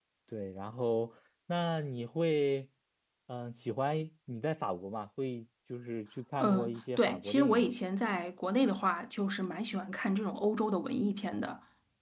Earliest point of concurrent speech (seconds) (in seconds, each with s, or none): 6.4 s